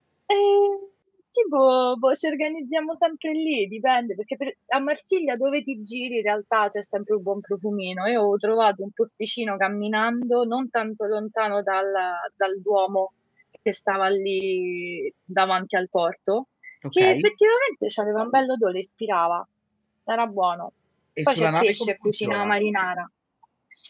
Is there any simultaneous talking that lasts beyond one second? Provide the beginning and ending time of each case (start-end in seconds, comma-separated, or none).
21.3-22.5